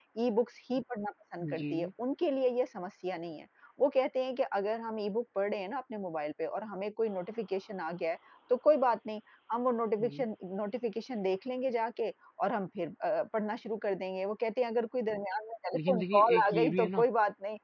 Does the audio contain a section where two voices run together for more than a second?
Yes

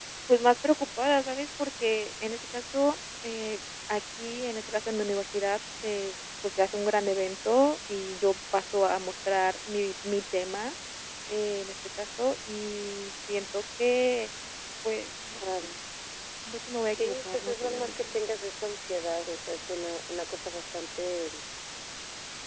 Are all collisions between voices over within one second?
No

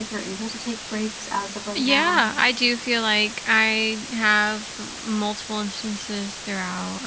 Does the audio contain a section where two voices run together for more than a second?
No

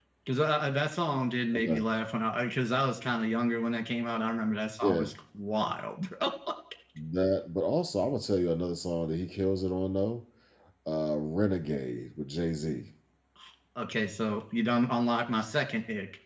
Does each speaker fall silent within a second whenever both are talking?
Yes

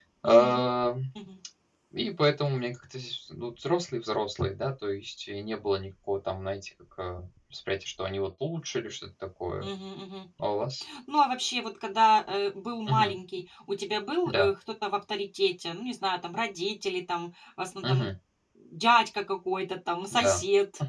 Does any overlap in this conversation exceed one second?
No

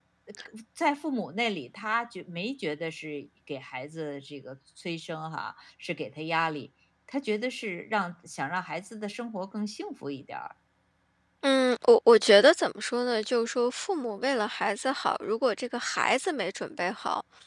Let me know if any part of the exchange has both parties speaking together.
No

